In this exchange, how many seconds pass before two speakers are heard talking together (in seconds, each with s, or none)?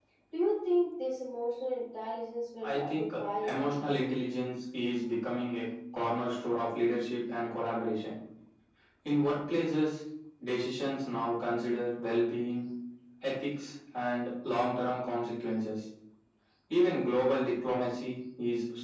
2.6 s